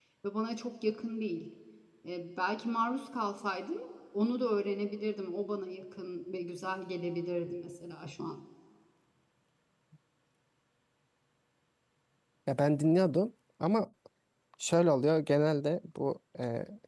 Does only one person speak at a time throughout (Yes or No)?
Yes